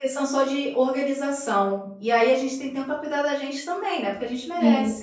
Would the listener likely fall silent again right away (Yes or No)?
No